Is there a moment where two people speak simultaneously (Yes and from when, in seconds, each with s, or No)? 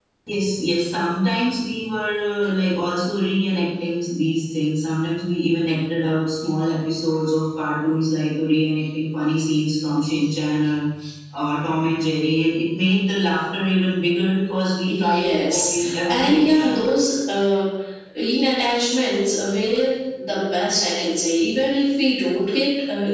Yes, from 14.8 s